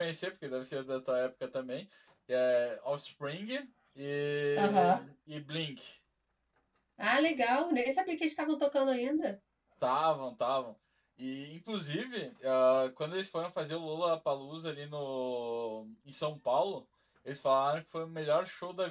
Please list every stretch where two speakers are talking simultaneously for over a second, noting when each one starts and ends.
none

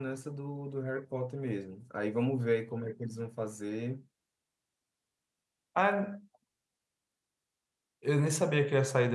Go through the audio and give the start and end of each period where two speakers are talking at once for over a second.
none

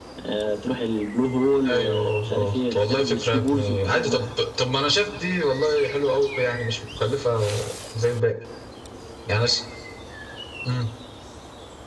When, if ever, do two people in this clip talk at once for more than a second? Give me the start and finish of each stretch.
1.6-4.2

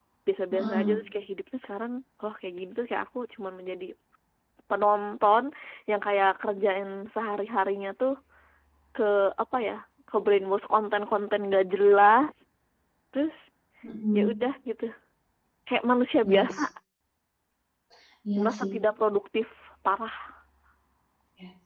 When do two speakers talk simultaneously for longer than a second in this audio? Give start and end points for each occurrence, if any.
none

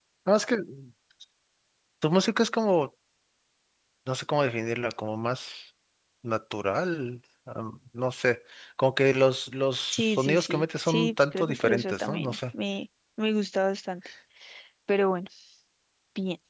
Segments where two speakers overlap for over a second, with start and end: 9.9-12.4

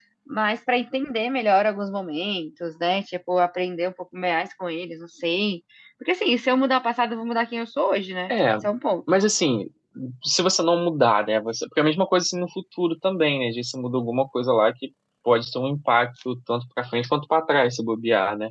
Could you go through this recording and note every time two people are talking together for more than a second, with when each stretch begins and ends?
none

